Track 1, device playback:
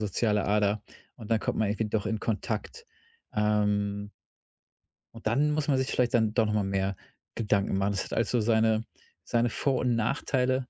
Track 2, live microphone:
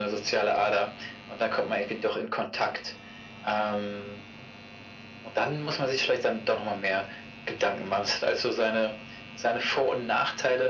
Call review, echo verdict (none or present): present